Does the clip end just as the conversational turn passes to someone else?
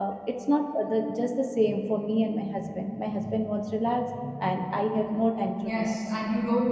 Yes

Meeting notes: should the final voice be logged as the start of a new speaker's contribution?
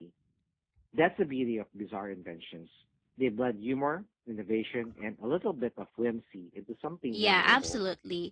Yes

